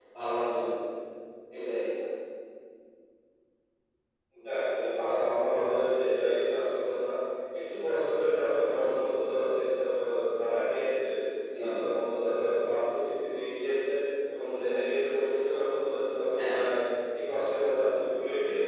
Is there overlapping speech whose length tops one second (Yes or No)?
No